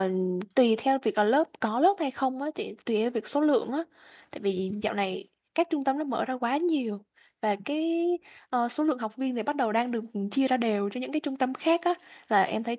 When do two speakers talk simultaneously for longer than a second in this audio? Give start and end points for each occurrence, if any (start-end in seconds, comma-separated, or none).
none